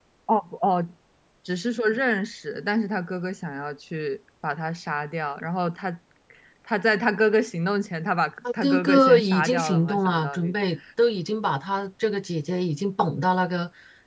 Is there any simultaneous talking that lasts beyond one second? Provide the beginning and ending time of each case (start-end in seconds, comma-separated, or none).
8.6-10.5